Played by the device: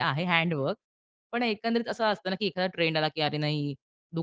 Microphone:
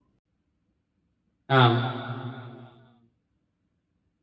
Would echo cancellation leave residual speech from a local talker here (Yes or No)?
Yes